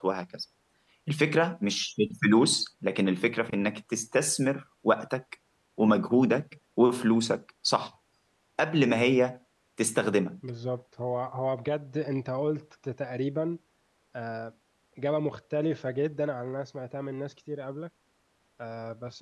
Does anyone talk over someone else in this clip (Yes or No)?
No